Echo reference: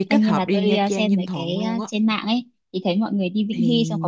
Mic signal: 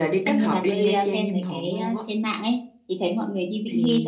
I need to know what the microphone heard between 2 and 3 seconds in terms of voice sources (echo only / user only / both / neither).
echo only